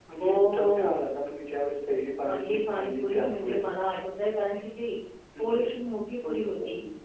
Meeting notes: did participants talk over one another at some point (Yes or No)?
Yes